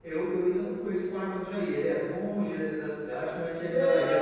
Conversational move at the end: taking over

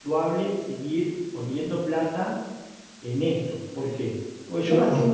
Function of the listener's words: listening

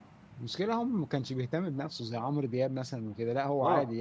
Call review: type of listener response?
taking over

